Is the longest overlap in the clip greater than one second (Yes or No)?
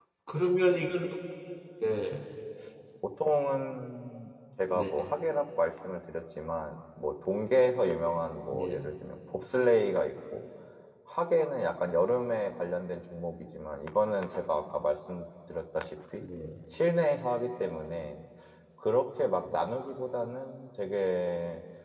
No